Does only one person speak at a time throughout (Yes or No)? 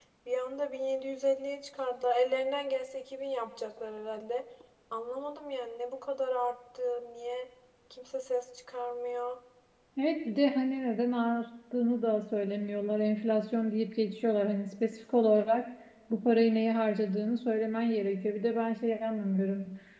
Yes